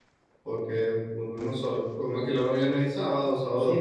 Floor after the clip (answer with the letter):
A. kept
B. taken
B